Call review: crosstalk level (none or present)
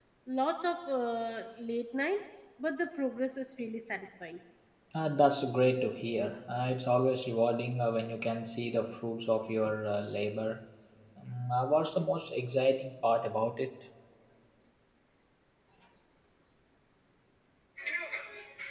none